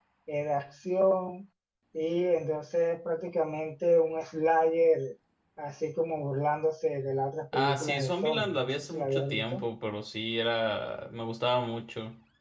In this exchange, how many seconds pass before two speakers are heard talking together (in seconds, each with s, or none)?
7.5 s